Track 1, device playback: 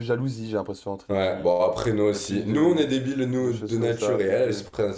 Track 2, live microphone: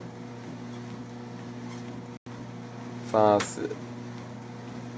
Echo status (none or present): none